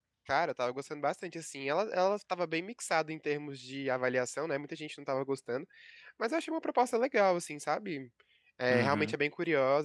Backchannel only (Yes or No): Yes